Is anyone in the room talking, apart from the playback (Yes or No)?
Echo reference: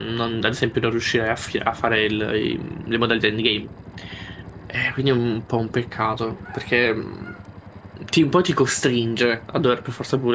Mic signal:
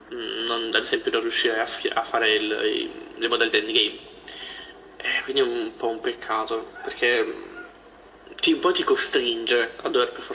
No